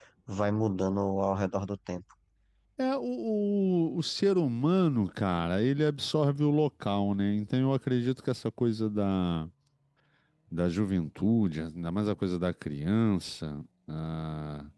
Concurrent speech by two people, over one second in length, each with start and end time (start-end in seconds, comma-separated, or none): none